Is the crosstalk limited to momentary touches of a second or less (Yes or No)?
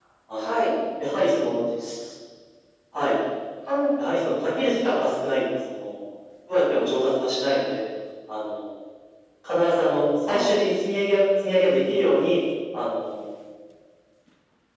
Yes